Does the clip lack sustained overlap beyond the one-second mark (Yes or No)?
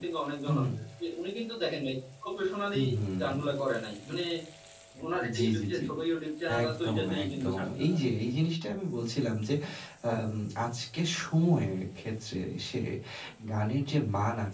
No